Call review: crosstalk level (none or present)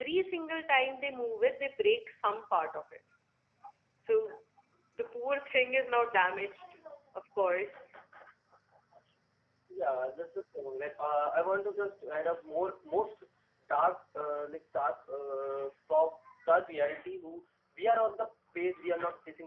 none